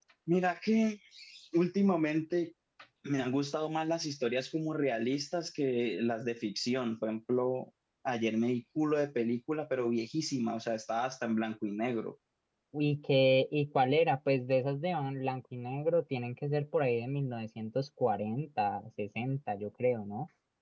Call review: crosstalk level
none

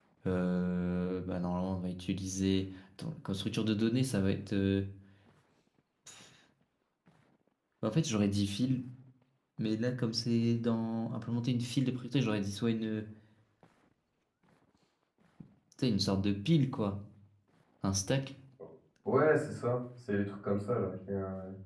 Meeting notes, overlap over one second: none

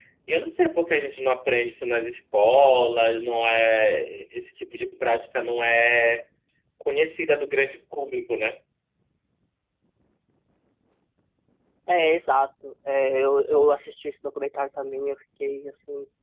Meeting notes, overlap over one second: none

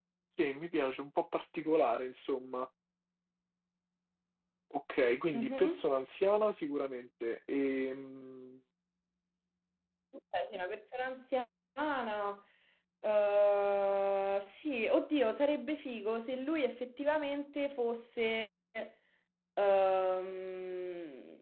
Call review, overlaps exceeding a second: none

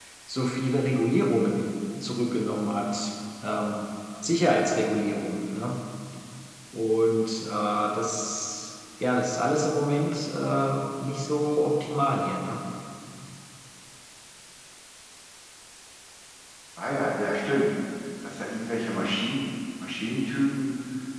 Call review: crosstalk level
none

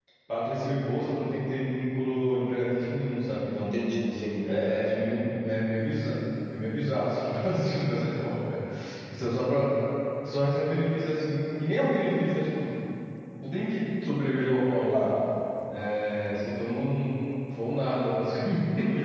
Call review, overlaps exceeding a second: none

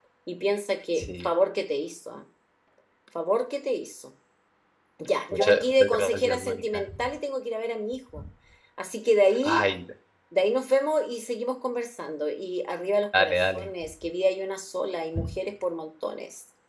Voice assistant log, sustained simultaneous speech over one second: present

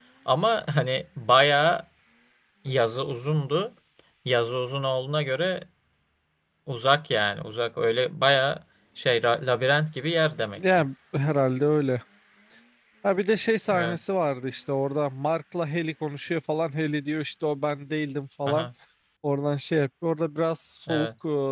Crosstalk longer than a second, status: none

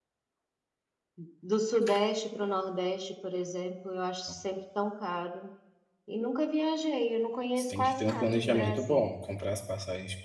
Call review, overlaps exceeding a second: present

